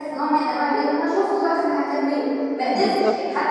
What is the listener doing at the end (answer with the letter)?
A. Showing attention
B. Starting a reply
A